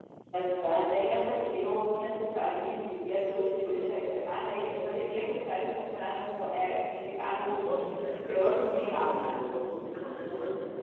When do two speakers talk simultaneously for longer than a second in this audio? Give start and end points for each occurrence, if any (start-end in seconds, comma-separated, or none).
8.1-9.3